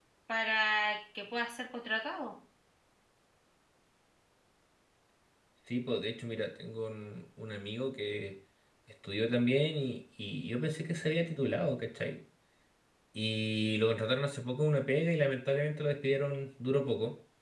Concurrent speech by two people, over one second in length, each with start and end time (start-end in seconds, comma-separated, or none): none